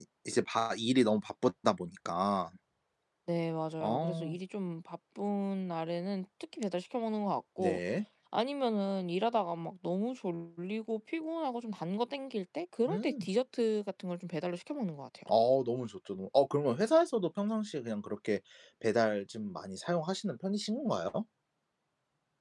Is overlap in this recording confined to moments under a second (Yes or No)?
Yes